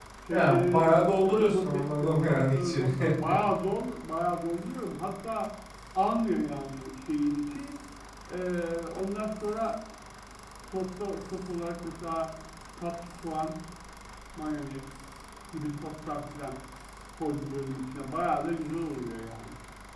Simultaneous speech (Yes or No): Yes